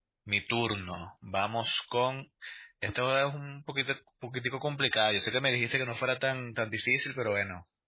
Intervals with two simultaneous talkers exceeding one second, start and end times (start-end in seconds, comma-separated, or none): none